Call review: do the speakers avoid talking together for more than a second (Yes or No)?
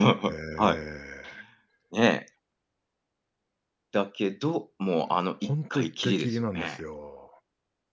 No